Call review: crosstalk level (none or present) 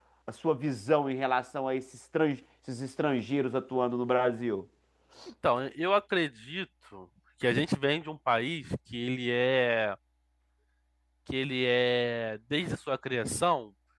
none